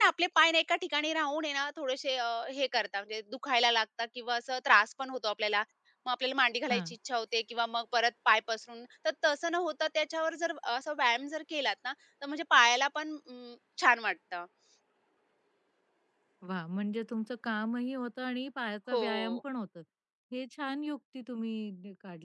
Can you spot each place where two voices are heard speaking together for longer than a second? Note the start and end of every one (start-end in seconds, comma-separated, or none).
none